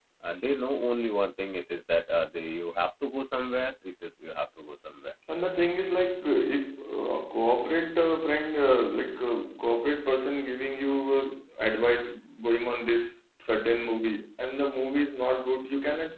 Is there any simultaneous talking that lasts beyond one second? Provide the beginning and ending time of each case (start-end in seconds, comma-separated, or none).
none